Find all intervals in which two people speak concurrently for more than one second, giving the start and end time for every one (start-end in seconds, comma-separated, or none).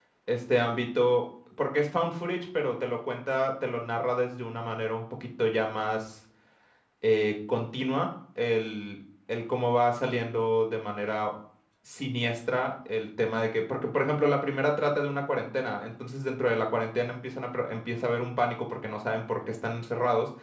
none